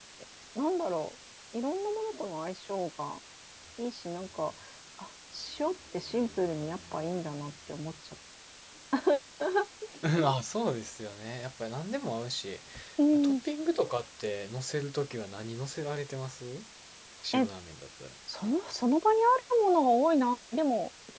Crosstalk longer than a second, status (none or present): none